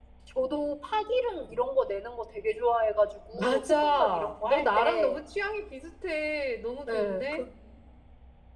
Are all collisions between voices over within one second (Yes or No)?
No